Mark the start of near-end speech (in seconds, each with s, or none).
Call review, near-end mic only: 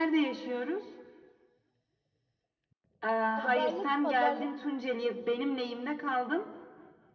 3.3 s